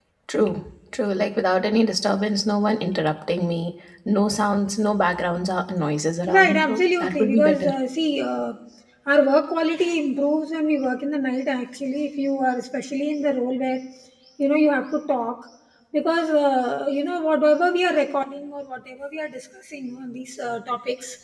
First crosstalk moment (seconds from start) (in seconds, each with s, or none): 6.3 s